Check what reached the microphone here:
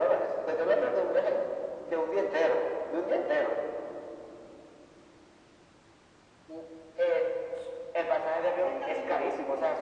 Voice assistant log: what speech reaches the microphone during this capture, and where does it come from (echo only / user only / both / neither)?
both